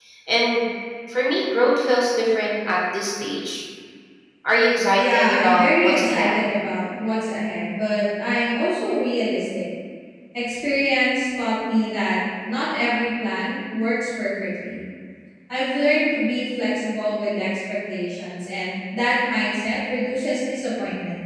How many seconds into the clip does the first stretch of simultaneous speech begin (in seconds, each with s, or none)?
4.9 s